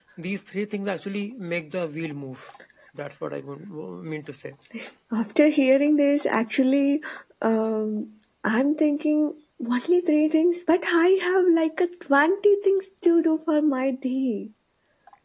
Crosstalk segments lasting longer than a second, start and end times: none

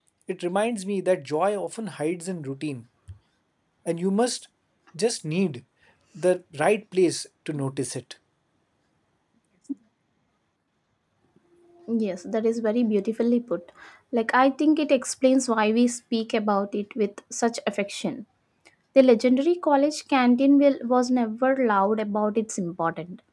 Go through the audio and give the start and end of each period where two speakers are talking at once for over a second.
none

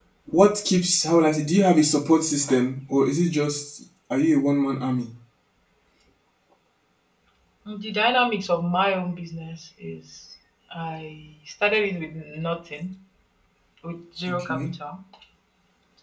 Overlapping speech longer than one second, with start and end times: none

